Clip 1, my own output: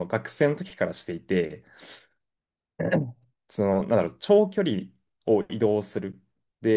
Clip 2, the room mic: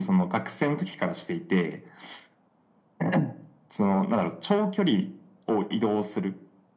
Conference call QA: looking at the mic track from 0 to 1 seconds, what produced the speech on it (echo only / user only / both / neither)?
echo only